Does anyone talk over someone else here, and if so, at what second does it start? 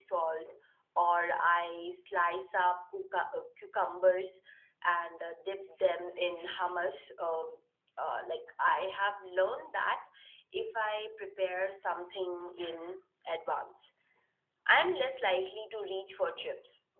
none

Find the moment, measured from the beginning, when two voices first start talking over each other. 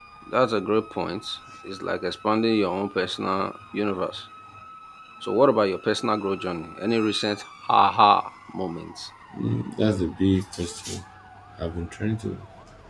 none

